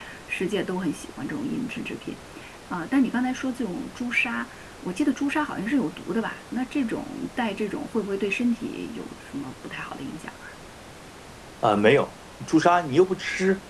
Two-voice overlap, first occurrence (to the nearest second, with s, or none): none